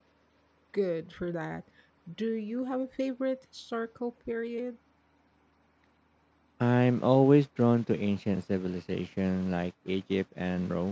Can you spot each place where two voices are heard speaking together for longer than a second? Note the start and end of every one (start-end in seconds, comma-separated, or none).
none